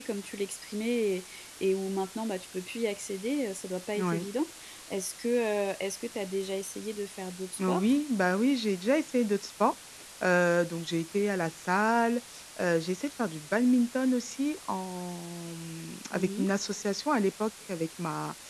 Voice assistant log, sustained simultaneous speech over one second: none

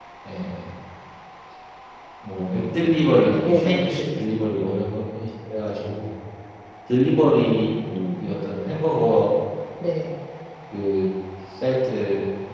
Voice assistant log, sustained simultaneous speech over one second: none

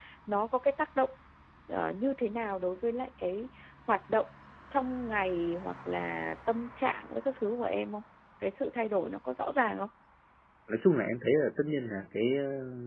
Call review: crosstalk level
none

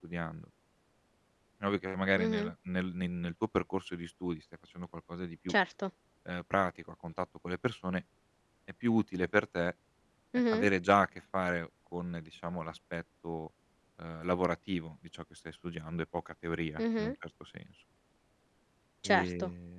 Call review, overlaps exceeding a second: none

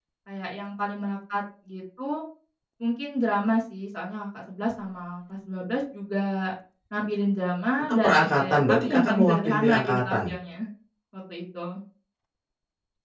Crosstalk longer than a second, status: present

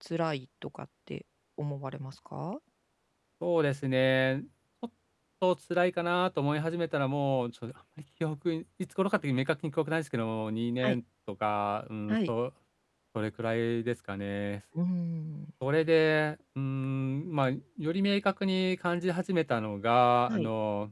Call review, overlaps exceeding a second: none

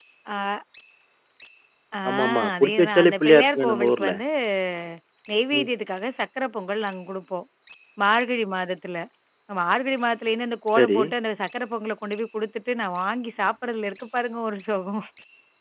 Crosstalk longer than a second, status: present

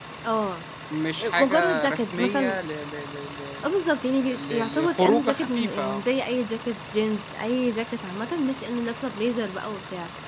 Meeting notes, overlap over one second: present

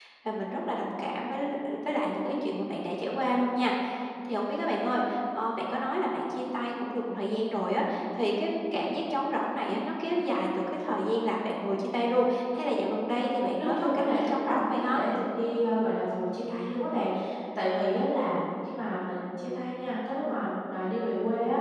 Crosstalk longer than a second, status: present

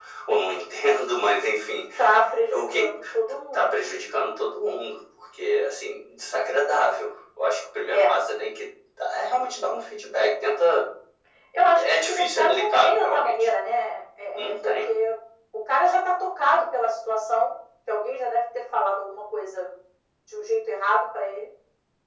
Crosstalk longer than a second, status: present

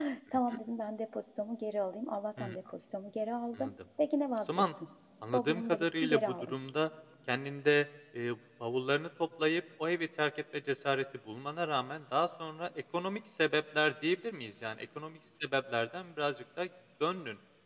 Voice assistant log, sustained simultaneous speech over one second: present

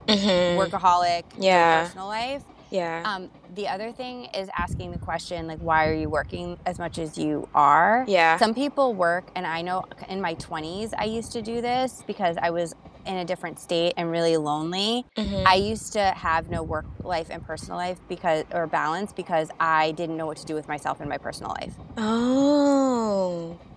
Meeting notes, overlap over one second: none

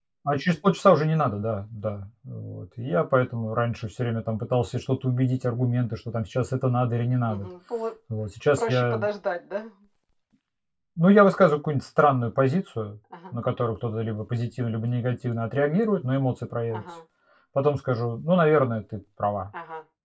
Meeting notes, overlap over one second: none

